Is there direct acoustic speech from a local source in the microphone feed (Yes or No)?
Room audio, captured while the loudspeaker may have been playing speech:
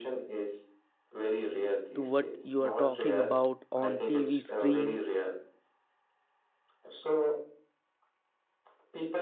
Yes